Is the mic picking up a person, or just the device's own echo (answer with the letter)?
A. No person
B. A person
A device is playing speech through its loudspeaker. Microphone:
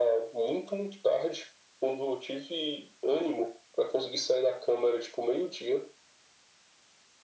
A